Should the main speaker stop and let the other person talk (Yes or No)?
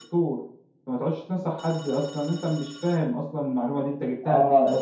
Yes